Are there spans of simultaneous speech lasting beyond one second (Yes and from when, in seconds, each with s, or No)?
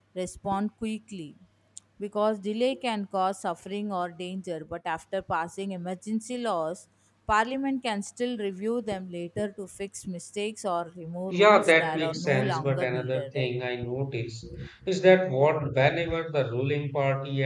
Yes, from 11.3 s